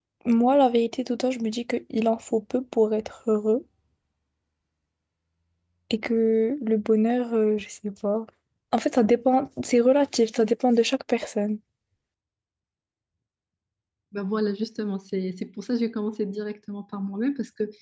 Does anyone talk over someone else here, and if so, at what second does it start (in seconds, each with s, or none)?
none